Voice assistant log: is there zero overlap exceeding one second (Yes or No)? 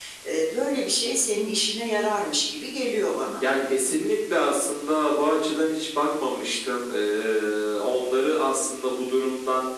Yes